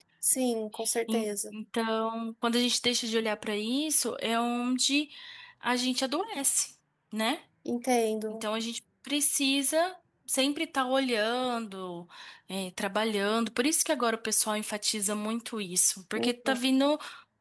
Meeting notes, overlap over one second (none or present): none